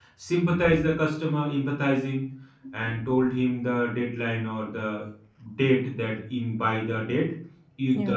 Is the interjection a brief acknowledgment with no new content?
Yes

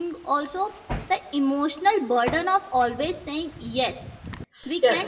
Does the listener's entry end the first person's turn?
Yes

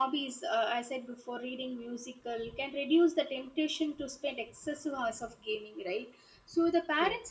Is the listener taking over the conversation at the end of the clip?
No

